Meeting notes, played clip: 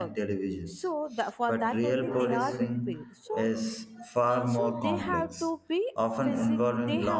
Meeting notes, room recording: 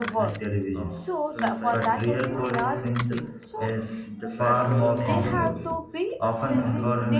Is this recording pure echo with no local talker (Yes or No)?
No